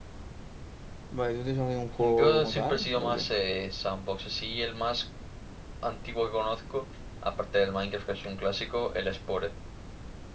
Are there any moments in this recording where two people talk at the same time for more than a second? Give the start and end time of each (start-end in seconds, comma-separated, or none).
2.0-3.3